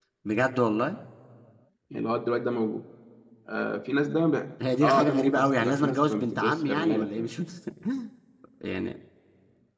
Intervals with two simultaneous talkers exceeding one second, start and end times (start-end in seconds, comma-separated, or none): 4.8-7.3